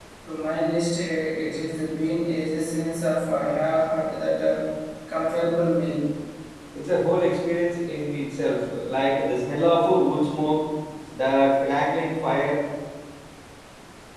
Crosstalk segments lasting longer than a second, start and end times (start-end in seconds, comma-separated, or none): none